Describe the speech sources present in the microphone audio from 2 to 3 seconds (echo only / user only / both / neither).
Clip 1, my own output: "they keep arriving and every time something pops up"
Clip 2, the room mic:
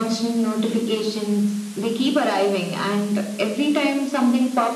echo only